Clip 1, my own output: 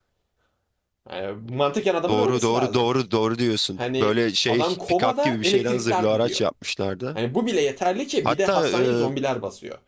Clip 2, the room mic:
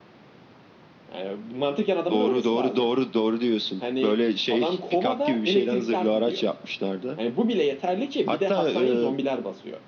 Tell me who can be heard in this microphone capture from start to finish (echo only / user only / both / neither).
echo only